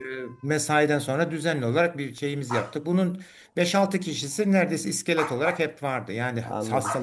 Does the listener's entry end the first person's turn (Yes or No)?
No